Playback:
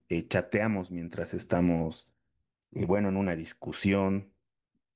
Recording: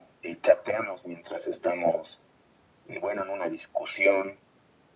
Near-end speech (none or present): none